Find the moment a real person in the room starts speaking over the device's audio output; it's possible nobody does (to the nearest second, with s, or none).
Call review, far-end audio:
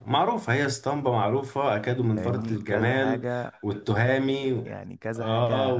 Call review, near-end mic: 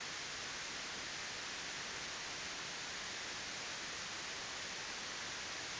none